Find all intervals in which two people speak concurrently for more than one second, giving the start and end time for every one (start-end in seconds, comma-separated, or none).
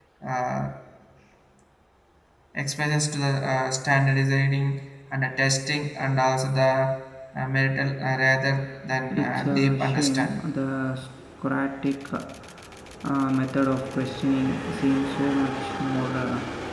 9.1-10.4